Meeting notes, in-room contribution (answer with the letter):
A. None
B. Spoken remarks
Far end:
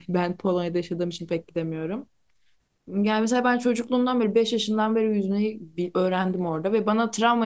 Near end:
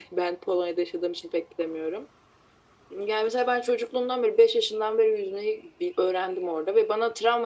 A